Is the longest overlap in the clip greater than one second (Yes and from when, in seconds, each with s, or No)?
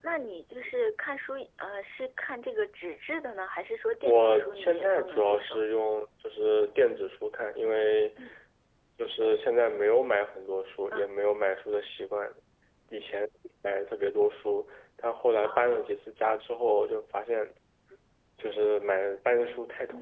Yes, from 4.0 s